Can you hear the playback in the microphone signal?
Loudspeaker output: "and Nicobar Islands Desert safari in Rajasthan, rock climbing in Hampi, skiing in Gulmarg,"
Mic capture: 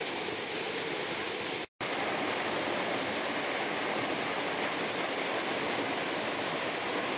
No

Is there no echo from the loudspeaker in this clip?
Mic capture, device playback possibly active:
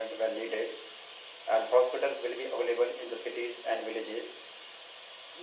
No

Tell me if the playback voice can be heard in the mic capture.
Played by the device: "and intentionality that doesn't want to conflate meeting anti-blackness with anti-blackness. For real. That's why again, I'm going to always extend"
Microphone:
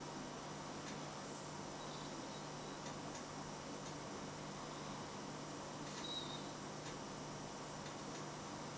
No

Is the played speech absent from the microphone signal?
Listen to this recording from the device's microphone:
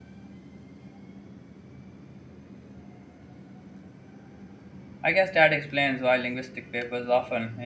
Yes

